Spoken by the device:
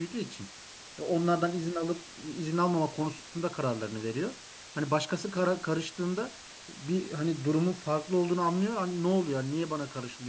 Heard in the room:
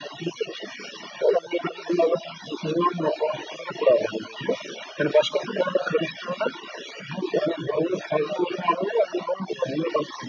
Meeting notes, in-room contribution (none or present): none